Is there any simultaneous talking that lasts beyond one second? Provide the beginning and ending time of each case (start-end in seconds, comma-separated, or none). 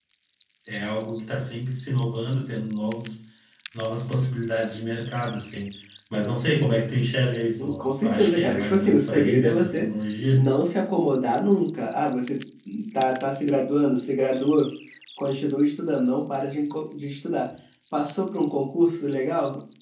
7.6-9.9